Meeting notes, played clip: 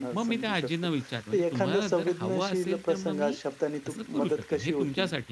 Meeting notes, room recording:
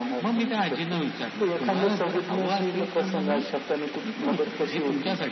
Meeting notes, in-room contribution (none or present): none